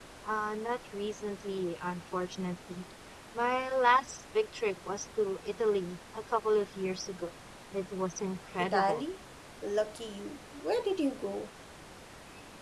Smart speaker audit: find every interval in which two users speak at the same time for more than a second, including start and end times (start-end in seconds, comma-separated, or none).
none